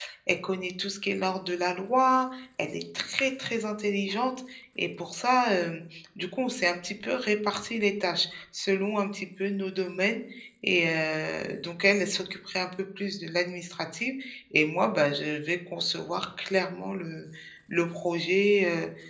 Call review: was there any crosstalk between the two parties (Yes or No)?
No